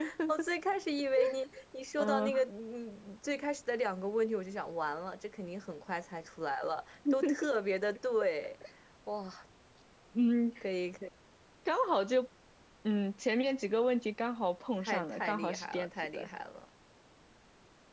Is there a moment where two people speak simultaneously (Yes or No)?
Yes